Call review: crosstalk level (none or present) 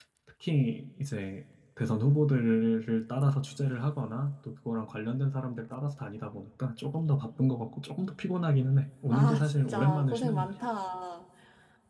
present